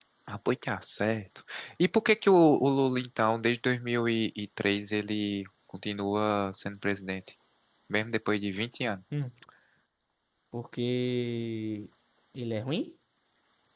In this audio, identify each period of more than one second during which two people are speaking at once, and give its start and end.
none

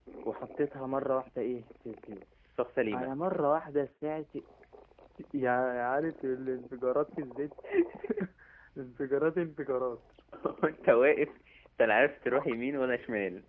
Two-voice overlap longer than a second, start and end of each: none

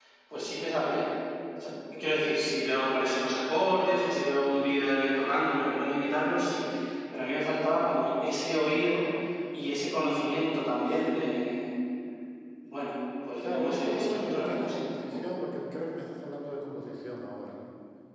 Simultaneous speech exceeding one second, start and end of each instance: 13.4-15.3

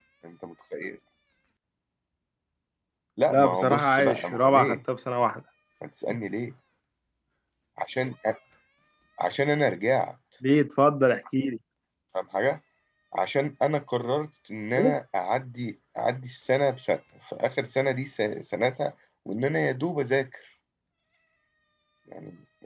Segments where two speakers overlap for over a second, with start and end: 3.3-4.8

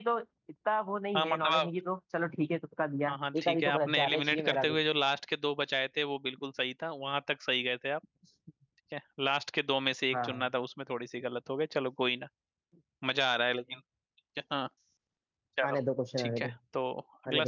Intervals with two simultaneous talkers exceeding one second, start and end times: 3.1-4.8

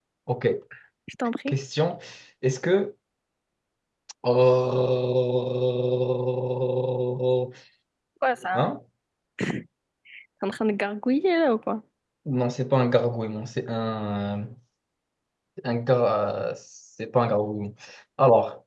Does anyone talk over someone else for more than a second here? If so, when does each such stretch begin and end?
none

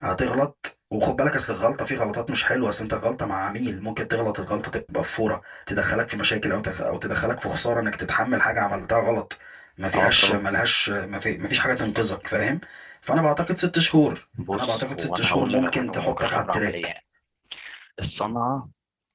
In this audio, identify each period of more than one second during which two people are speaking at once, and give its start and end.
14.5-16.7

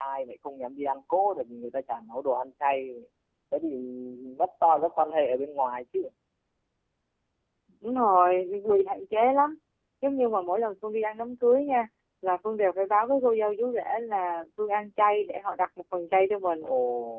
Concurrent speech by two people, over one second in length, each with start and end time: none

